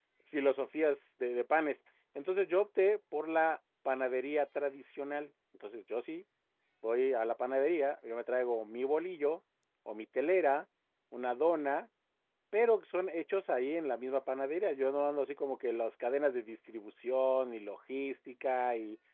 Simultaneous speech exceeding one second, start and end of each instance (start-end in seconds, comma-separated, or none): none